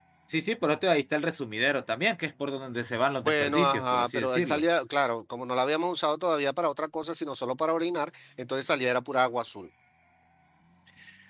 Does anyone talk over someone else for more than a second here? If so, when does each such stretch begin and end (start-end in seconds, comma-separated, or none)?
3.2-4.6